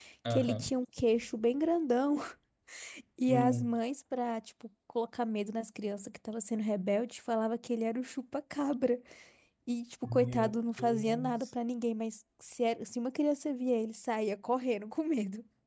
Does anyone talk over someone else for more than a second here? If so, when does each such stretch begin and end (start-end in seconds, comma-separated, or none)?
10.0-11.5